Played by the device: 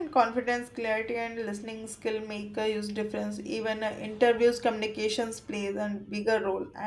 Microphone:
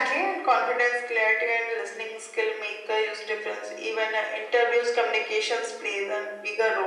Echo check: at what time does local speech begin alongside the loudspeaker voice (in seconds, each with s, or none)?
none